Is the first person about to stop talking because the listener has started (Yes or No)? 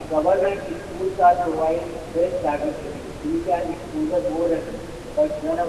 No